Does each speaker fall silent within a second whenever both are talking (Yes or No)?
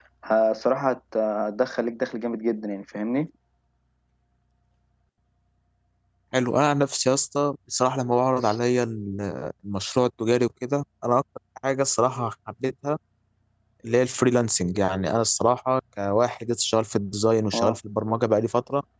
Yes